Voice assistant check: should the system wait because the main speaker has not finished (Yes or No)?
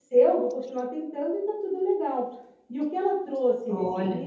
Yes